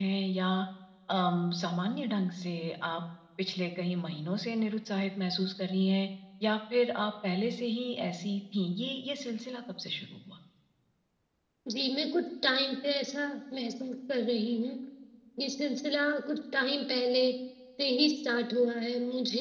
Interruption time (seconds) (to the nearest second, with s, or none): none